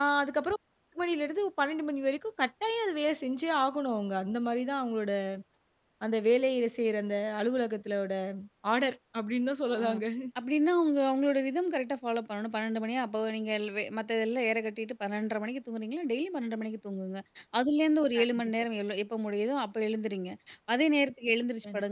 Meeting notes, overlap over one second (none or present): none